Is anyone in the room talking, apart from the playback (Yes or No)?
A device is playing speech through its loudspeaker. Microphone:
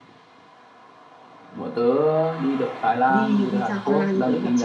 Yes